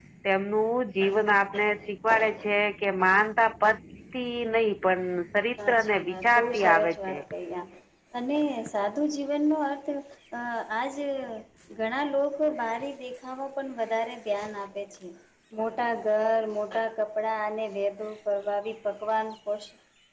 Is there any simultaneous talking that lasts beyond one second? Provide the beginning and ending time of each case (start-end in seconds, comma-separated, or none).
5.7-7.2